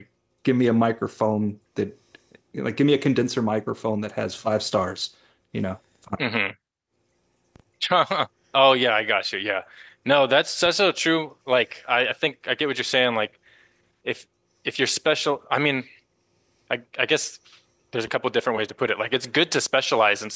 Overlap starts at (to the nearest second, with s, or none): none